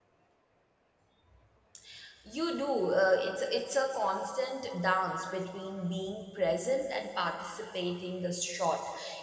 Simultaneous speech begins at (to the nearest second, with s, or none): none